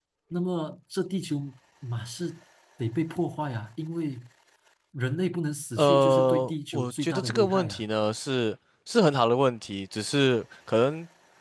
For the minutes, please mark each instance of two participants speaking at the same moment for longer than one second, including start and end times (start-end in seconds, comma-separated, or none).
5.8-7.8